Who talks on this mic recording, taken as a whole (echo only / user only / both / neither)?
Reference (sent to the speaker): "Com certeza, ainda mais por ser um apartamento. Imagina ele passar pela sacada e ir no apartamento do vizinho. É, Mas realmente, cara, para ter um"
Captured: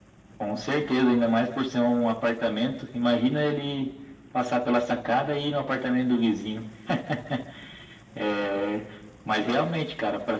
echo only